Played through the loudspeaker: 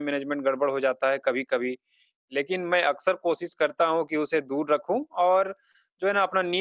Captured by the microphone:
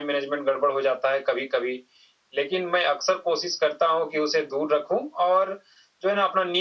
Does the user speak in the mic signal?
No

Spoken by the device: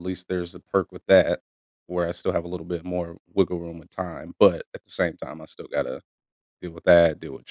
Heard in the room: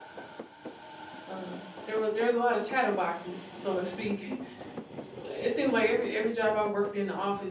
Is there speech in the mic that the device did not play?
Yes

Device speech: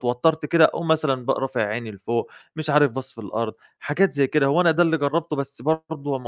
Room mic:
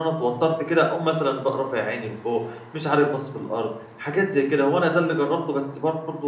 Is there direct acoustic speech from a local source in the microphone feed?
No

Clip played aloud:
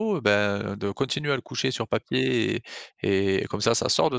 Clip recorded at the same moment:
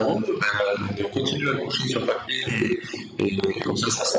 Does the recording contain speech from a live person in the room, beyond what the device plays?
No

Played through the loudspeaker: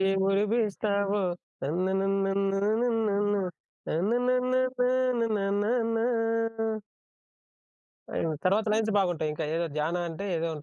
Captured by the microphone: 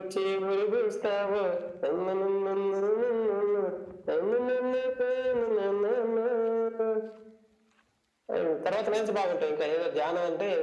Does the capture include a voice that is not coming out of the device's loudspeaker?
No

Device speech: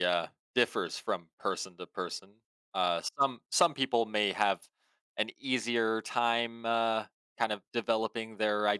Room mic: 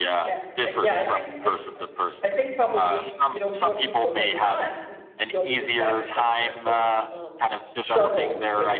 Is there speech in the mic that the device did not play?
Yes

